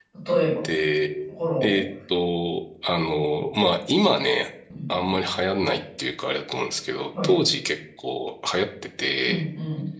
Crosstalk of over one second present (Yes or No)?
No